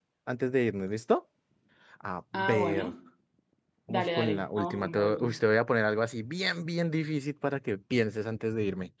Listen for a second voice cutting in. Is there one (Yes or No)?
Yes